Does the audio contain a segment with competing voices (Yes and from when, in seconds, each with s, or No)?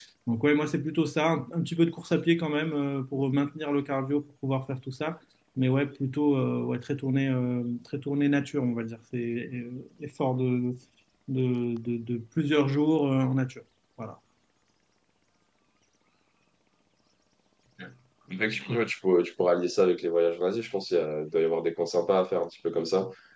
No